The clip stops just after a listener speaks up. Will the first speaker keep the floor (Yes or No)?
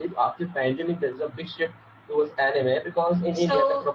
Yes